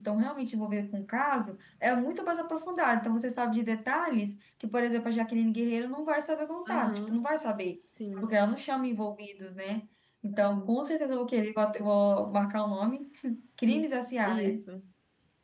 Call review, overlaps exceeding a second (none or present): none